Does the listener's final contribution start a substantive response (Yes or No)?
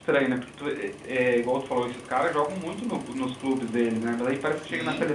No